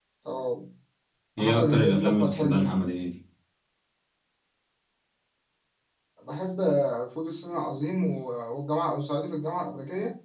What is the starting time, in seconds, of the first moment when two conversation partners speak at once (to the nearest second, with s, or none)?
1 s